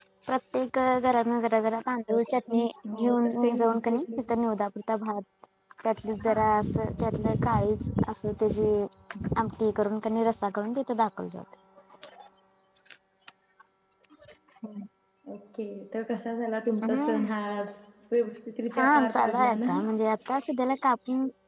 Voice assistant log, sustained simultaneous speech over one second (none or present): present